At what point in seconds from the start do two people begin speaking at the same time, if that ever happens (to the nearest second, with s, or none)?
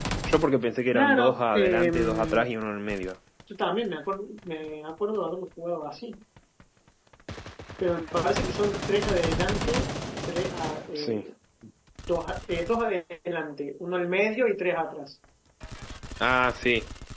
1 s